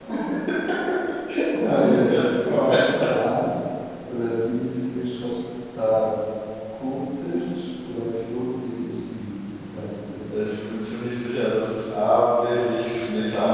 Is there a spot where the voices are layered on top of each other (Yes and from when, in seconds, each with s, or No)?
Yes, from 1.6 s